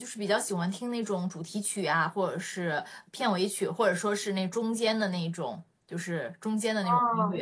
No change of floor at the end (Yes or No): No